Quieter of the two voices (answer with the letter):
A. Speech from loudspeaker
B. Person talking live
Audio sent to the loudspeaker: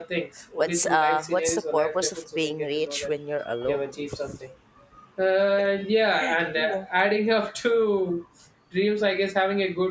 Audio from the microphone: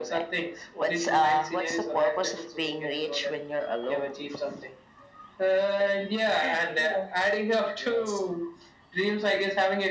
B